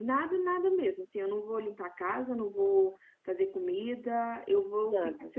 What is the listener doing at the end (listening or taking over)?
listening